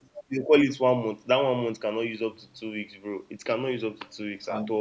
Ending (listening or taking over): taking over